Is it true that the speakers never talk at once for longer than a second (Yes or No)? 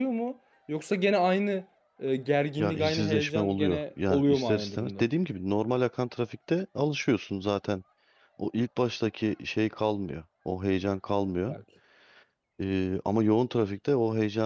No